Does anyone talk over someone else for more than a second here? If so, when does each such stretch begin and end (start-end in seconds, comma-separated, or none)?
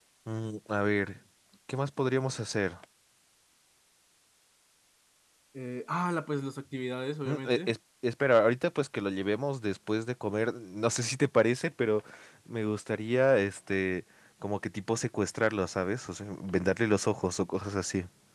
none